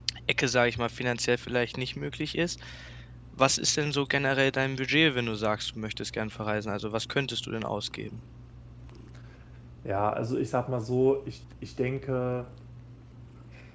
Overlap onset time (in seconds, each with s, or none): none